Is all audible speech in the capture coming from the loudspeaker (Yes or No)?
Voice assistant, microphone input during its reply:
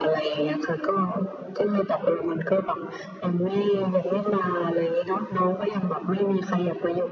Yes